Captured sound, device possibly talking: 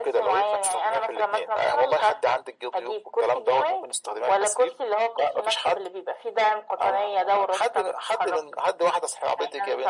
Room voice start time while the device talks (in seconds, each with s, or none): none